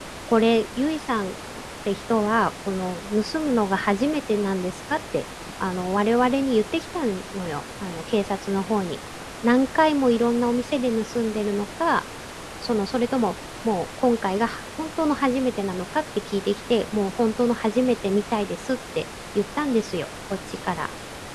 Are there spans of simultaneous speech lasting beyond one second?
No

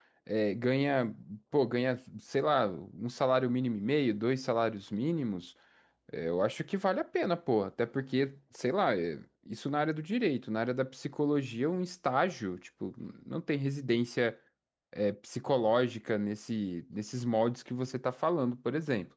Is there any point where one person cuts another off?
No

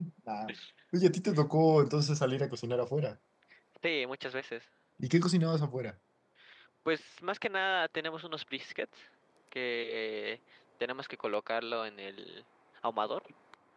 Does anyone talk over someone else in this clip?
No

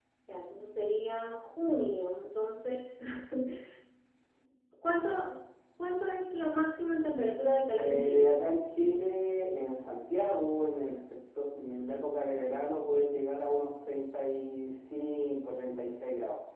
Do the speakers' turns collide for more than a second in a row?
No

